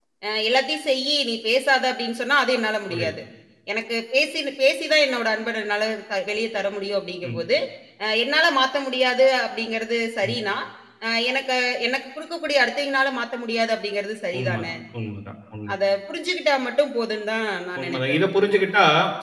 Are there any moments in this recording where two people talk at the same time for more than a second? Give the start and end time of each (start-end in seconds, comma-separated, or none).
none